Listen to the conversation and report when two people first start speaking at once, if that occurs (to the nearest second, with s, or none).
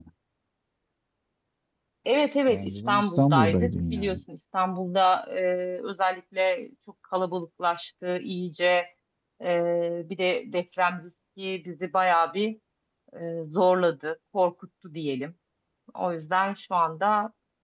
2 s